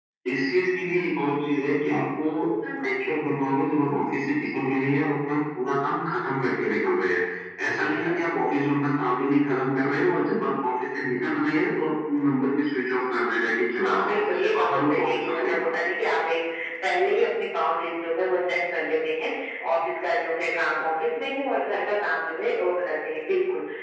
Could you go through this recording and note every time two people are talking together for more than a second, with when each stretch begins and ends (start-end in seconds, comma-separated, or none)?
13.8-15.9